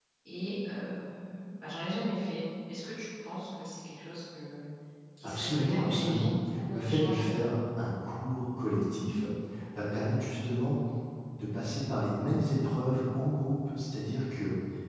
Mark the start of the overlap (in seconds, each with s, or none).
5.2 s